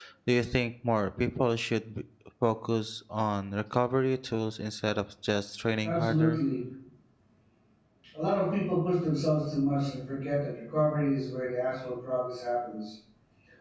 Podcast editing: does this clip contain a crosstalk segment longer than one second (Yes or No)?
No